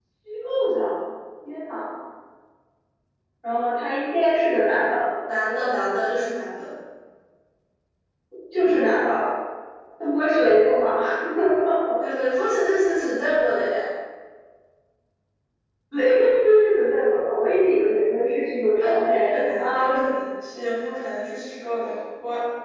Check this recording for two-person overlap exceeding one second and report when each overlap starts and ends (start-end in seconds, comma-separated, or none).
18.8-20.1